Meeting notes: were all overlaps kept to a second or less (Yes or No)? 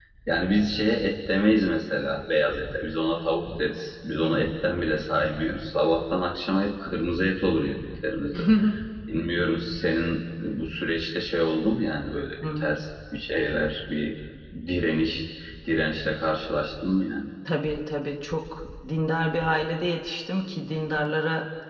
Yes